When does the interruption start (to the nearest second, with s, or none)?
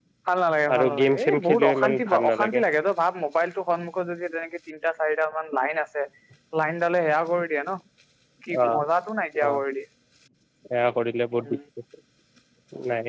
1 s